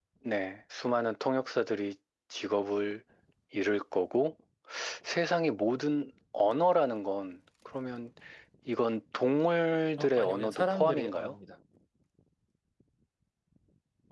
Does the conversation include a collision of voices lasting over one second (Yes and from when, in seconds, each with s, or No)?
Yes, from 10.0 s